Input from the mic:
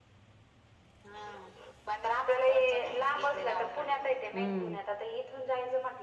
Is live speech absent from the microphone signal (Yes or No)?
No